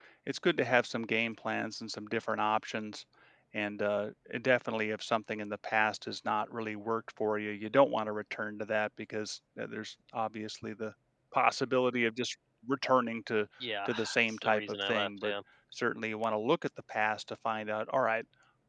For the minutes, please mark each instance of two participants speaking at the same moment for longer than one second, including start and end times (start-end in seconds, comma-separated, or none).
13.8-15.3